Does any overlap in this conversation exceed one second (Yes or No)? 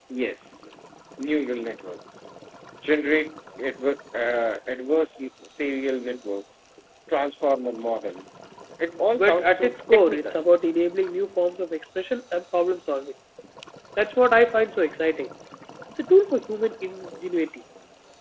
Yes